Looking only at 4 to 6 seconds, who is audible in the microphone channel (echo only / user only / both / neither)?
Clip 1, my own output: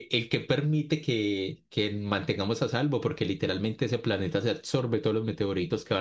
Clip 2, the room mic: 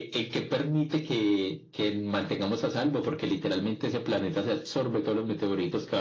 echo only